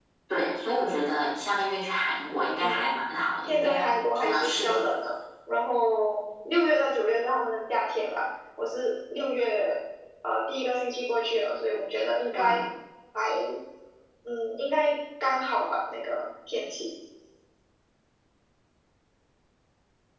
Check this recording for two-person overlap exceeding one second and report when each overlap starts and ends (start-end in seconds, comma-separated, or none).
3.5-4.8